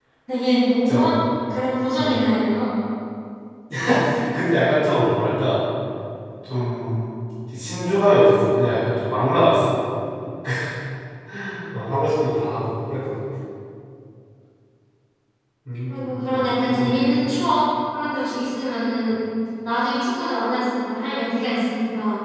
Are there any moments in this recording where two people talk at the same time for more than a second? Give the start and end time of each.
15.9-17.1

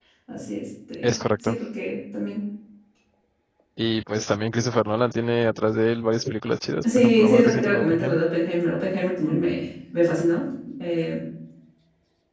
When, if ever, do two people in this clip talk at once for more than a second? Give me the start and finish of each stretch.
6.8-8.2

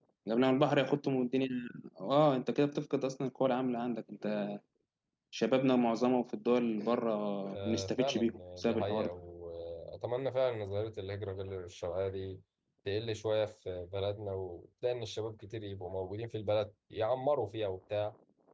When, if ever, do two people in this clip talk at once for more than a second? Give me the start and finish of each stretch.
7.5-9.1

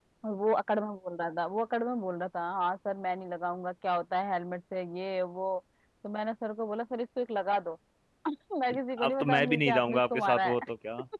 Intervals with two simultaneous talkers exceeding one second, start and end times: 9.0-10.5

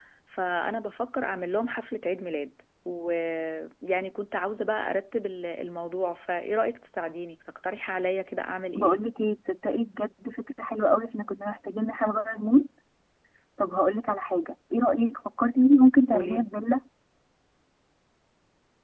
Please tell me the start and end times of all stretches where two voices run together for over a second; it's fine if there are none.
none

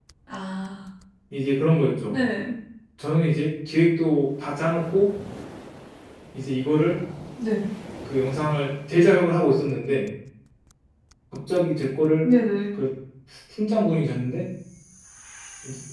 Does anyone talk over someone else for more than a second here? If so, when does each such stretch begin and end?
none

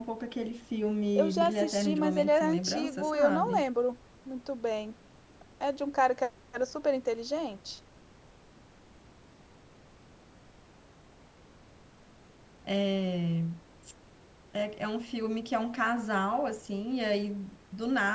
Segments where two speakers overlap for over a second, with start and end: 1.2-3.6

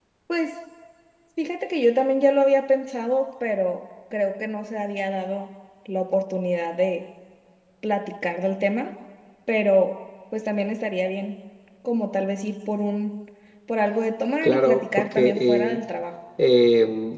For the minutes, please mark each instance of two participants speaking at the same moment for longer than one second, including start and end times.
14.4-15.8

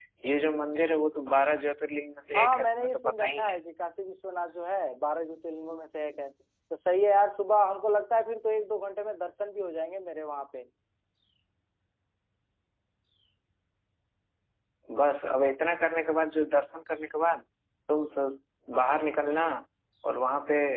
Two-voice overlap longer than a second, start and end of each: 2.3-3.6

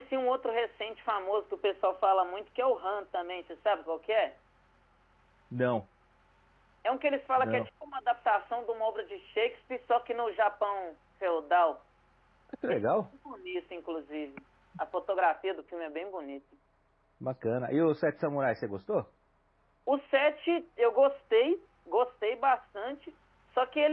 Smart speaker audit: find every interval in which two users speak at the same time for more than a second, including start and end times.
none

